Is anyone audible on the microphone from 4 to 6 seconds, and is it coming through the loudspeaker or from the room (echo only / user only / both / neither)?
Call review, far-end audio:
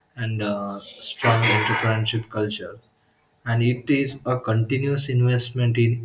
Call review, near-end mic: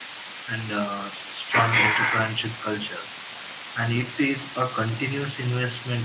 echo only